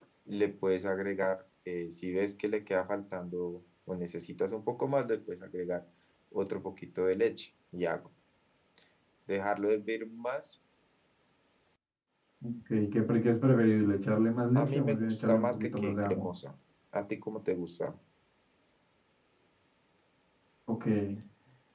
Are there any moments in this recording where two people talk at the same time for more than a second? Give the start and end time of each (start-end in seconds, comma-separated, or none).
14.2-16.3